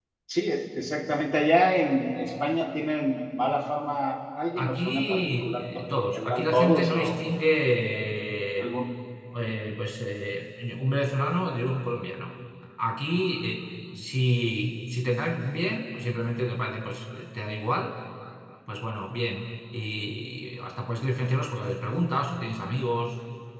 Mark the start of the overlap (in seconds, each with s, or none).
4.6 s